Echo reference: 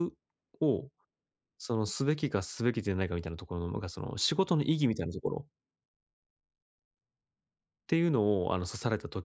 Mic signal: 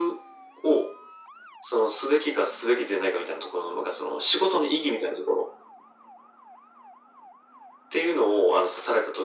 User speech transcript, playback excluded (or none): none